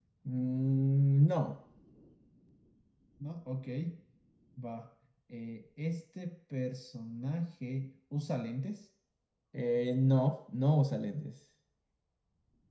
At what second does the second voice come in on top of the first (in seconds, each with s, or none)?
none